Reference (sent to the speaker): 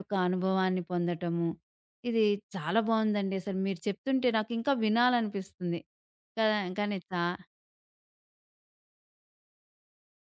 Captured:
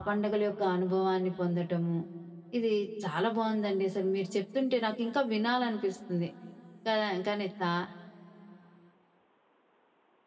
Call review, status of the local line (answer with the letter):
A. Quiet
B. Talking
A